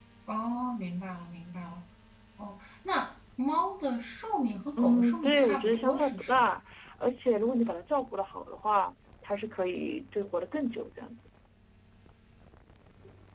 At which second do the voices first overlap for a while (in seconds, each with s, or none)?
4.8 s